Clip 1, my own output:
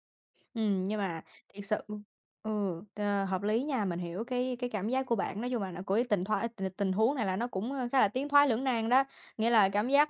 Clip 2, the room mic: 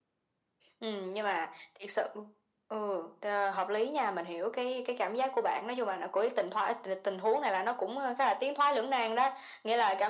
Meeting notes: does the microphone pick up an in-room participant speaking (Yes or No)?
No